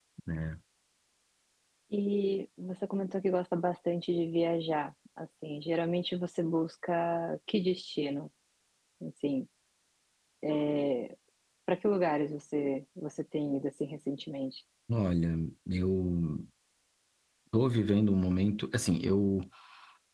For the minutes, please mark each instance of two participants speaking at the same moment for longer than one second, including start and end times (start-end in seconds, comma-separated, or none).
none